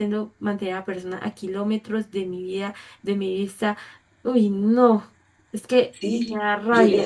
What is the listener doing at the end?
taking over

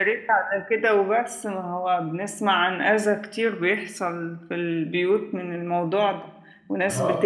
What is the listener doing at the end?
listening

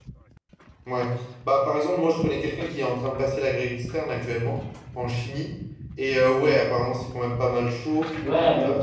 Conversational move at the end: taking over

